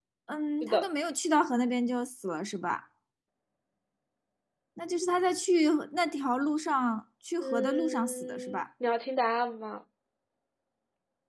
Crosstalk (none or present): present